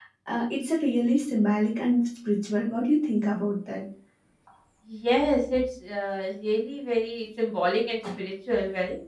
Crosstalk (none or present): none